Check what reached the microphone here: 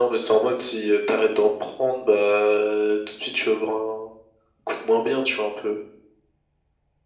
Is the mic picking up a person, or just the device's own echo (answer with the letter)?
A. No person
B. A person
A